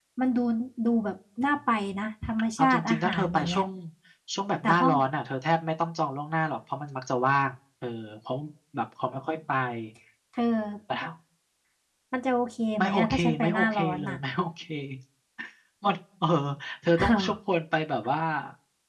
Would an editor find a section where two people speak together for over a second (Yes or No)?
Yes